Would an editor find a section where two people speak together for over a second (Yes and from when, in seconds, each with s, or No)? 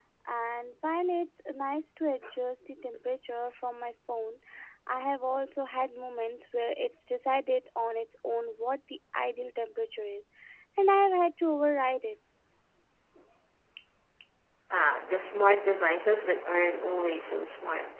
No